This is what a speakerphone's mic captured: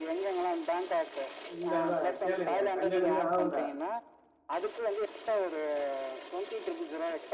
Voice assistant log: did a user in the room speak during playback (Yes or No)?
Yes